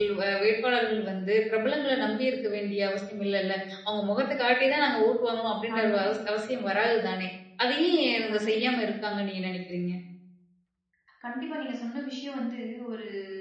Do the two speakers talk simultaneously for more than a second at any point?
No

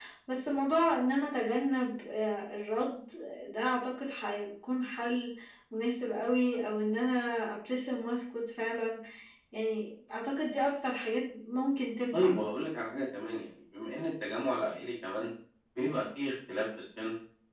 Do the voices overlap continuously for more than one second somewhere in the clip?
No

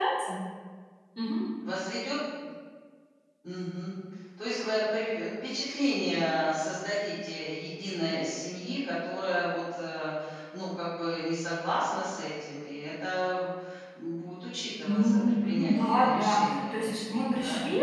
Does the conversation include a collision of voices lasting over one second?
Yes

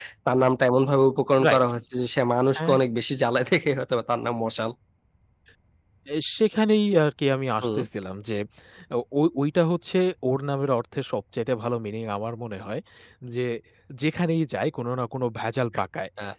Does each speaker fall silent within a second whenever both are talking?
Yes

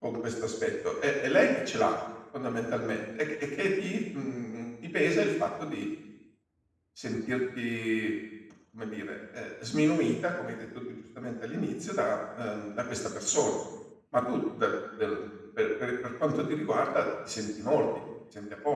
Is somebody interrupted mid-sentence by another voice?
No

